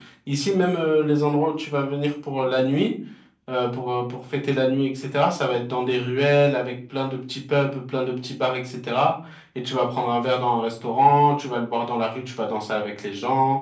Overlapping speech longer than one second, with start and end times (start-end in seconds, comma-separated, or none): none